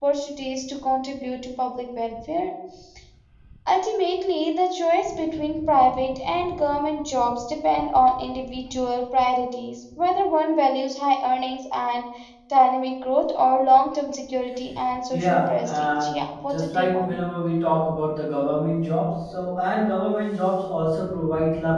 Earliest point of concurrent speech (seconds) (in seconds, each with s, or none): 15.1 s